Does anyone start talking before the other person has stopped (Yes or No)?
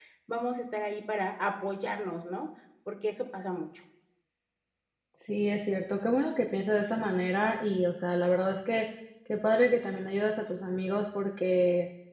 No